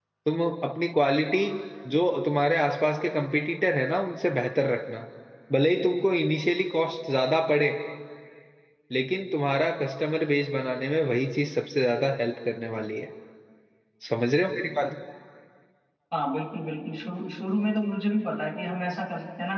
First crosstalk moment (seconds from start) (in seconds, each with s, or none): none